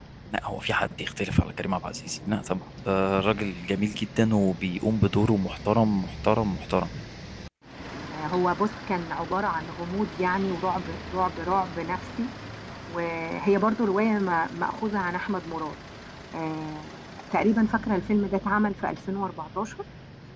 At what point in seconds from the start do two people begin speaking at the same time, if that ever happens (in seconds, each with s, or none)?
none